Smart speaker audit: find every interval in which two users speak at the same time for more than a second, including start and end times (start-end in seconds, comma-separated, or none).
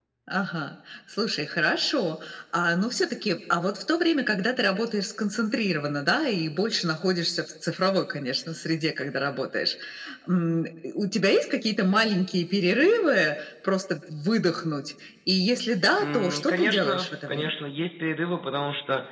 16.0-17.5